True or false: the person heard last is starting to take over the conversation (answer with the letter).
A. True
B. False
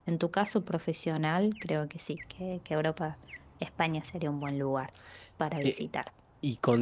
A